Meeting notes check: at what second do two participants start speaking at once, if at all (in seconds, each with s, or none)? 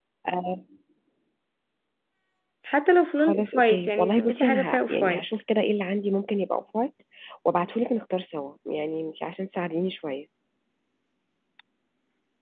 3.2 s